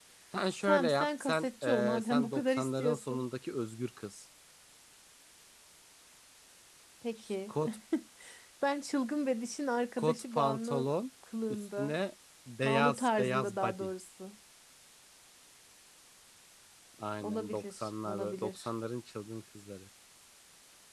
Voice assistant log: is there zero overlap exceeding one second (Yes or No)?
No